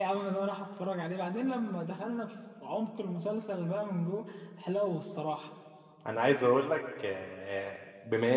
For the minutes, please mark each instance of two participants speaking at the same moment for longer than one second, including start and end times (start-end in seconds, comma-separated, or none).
none